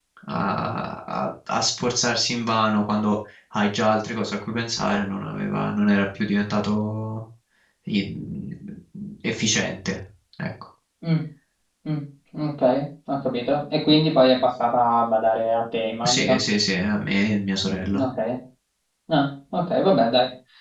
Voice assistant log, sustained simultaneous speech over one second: none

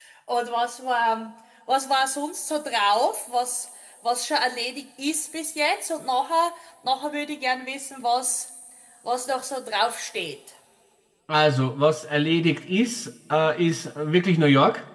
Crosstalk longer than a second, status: none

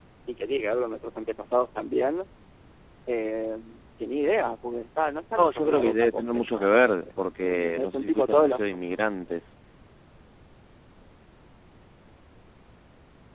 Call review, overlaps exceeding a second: present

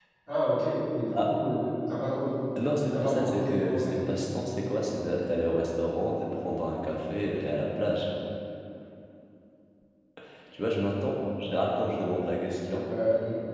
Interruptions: present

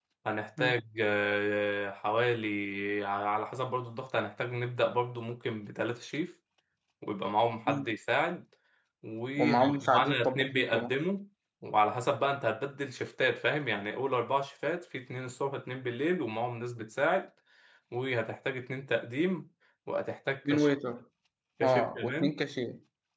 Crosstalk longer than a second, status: present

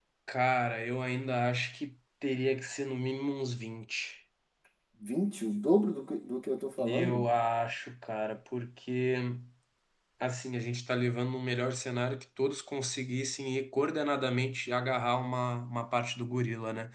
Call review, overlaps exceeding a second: none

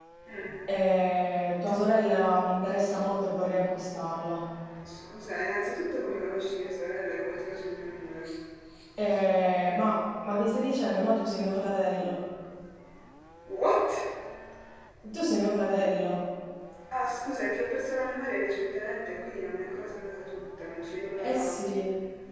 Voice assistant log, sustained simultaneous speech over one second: none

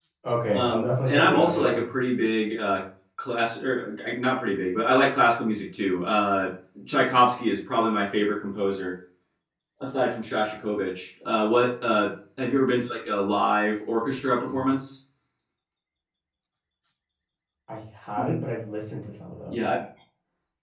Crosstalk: present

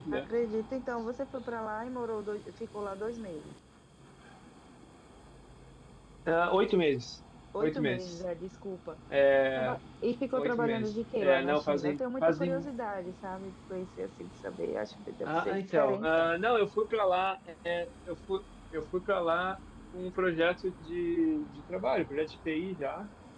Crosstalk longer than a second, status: present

